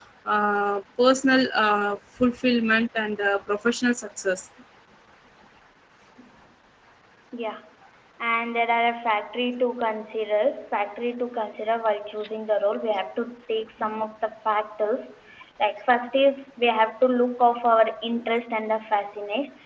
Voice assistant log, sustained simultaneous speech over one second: none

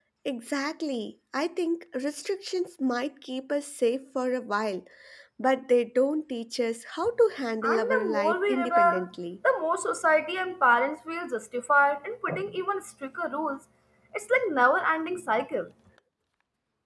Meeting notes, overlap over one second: present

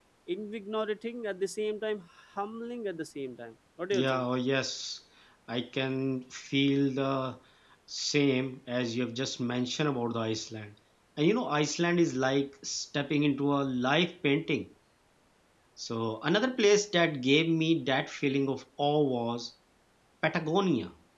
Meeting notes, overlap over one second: none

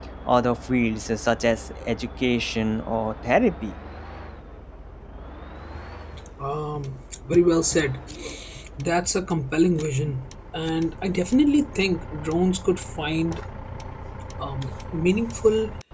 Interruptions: none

